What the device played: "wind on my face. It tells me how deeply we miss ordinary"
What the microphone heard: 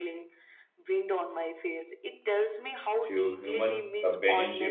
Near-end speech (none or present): present